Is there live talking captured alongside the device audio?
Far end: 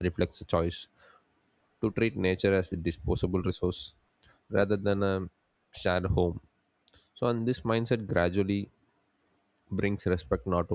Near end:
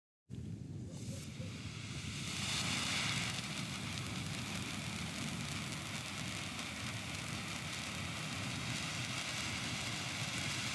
No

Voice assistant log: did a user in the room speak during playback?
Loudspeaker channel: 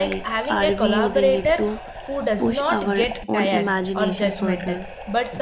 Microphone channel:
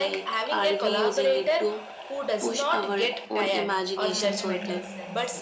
Yes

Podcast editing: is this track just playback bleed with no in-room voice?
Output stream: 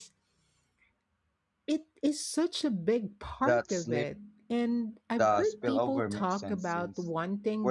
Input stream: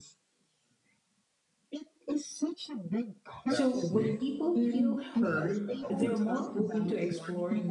No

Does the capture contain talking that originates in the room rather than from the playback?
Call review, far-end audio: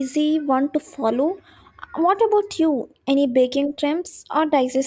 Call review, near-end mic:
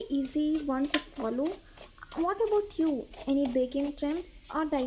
No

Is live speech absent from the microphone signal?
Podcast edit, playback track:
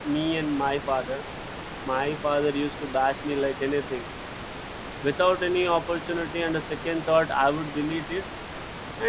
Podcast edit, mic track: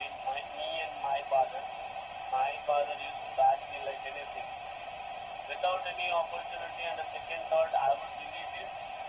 Yes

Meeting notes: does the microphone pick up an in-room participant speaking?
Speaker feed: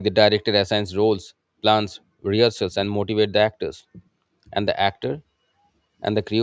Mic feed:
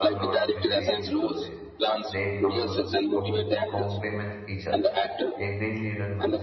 Yes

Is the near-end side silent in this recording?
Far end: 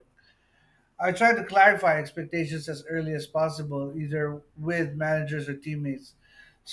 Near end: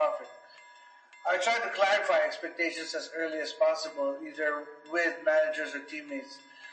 Yes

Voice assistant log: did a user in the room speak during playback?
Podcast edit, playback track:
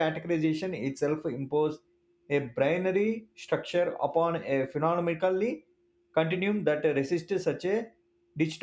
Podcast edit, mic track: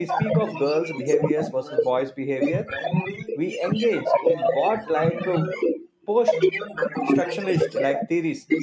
Yes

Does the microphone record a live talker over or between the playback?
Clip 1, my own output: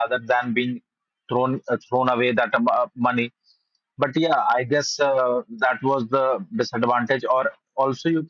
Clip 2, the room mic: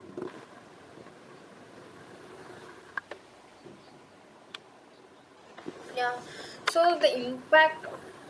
Yes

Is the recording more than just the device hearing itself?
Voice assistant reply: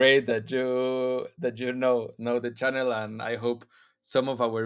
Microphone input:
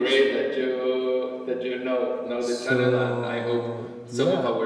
Yes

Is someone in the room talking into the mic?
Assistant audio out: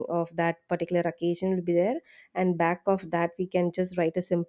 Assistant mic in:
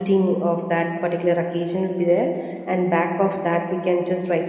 No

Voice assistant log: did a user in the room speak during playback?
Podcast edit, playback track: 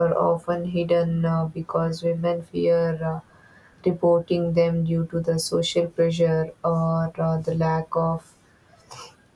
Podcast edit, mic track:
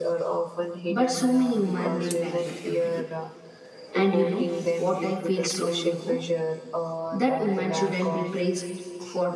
Yes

